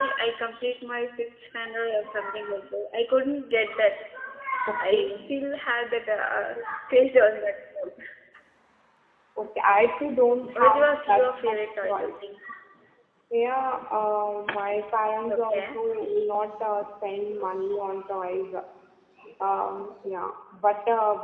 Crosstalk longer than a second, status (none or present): present